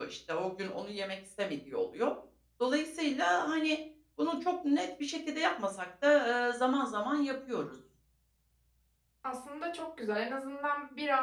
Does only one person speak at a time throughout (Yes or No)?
Yes